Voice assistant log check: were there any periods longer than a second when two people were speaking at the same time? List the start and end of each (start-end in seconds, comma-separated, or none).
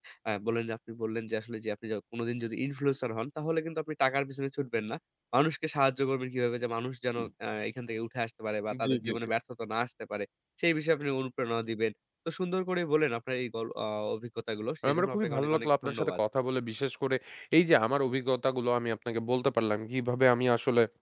14.9-16.2